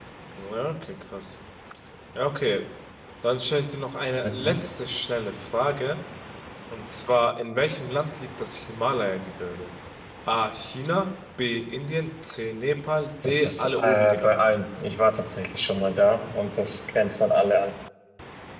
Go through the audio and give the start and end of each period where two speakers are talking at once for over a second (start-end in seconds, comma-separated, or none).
13.2-14.6